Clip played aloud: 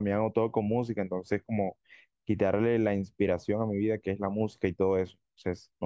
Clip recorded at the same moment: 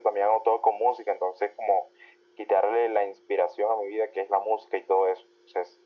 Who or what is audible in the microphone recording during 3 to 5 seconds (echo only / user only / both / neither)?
echo only